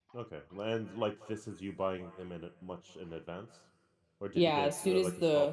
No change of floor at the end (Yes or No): No